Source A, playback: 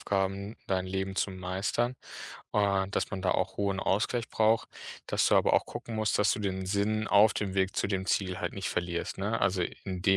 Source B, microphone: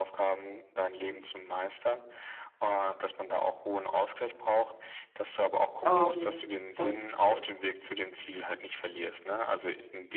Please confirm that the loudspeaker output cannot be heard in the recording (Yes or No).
No